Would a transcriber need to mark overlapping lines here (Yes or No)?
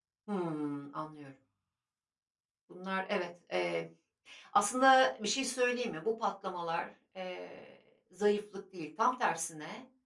No